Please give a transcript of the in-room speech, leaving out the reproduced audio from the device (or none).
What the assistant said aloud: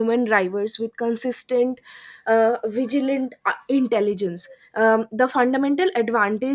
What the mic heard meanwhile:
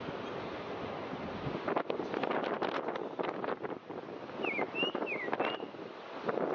none